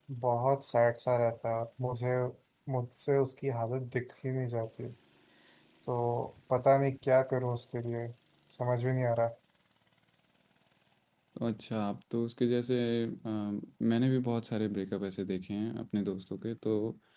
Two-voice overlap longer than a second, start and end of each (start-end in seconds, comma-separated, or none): none